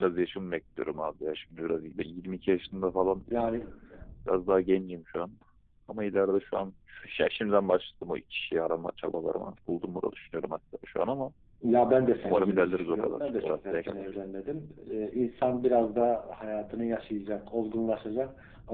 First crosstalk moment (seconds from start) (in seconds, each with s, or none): 12.2 s